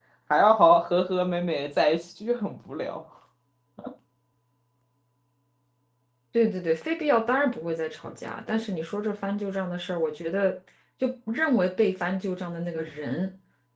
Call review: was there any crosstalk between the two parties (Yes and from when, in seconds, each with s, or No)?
No